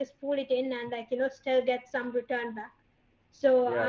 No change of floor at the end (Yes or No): Yes